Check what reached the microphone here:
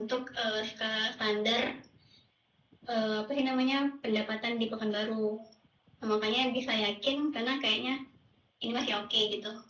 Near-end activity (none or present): none